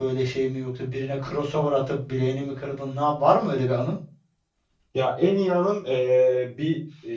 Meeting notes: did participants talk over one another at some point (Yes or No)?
No